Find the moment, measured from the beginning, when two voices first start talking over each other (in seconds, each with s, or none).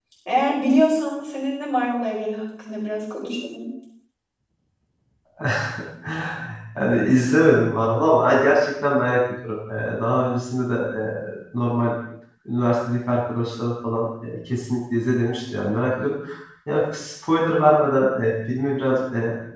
none